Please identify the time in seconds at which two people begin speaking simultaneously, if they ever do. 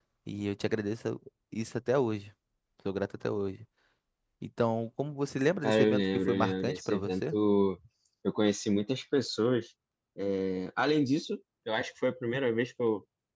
5.6 s

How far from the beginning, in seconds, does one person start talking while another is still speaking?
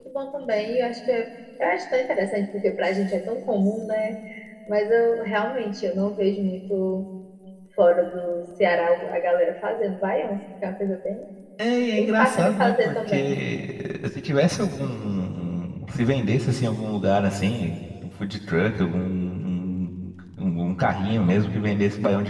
12.0 s

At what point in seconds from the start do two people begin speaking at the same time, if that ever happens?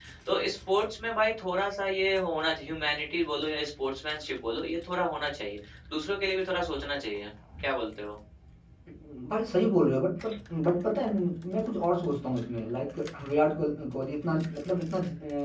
none

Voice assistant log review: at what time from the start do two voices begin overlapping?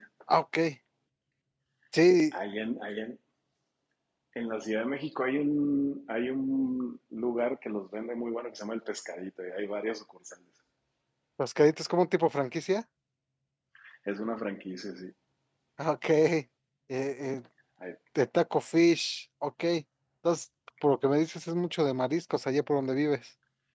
none

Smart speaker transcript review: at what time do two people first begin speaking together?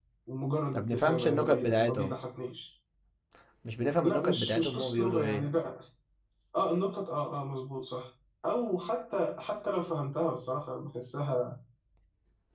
0.7 s

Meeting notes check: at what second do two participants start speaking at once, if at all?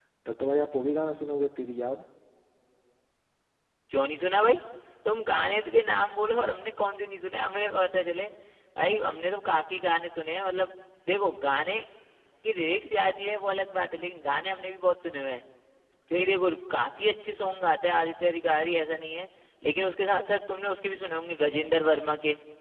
none

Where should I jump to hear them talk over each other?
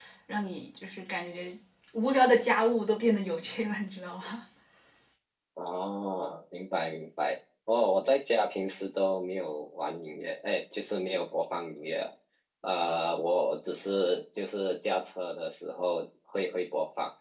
none

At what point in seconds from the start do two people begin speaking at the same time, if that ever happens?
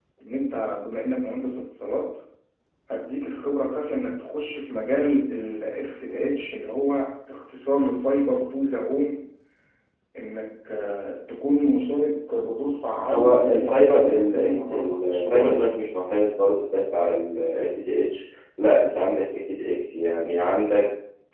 13.1 s

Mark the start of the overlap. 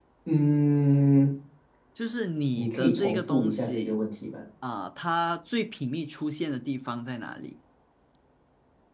2.5 s

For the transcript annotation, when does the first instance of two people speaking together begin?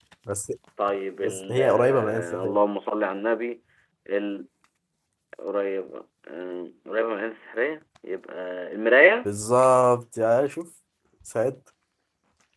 1.2 s

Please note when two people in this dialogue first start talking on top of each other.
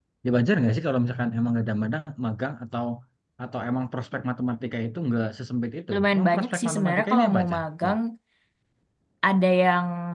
5.9 s

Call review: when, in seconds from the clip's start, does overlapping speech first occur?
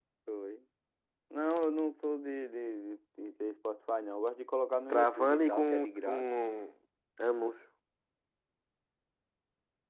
4.9 s

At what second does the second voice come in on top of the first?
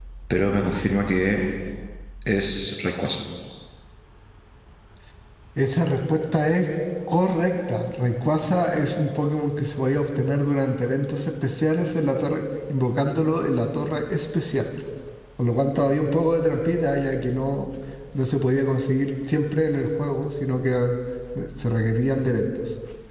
none

